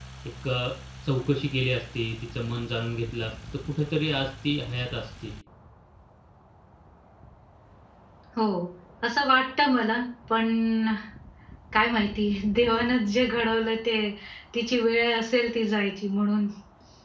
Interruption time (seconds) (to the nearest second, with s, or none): none